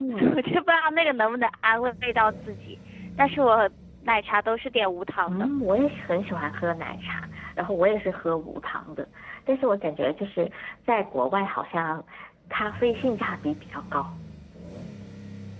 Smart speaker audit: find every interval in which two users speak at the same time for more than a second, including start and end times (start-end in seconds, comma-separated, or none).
none